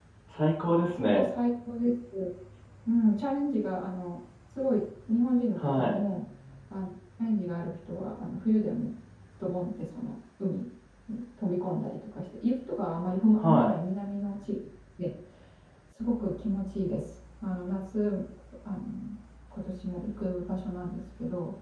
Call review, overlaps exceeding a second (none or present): none